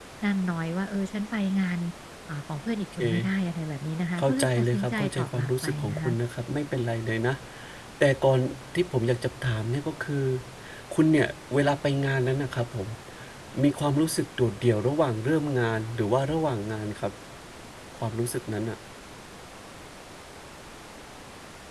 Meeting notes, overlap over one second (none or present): present